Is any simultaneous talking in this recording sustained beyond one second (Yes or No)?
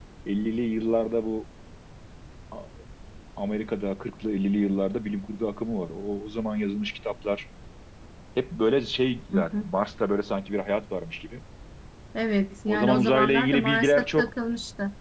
Yes